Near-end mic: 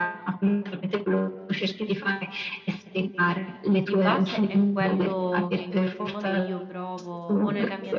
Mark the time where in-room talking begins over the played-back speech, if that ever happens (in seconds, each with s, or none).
3.8 s